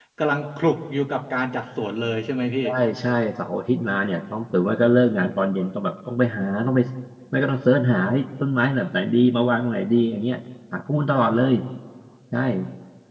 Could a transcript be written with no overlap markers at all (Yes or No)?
Yes